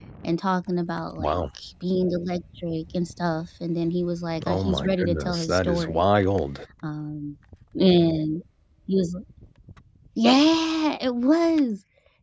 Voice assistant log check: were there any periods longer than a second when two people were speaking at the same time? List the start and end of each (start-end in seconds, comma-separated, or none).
4.5-6.0